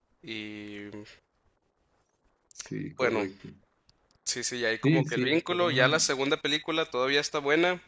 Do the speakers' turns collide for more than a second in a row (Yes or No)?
Yes